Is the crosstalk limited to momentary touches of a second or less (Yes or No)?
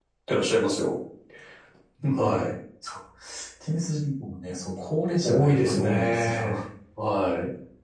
No